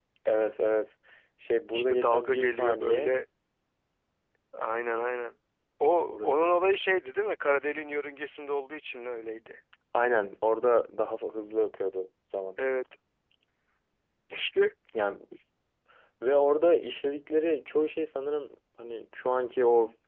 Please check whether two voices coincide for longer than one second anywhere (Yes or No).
Yes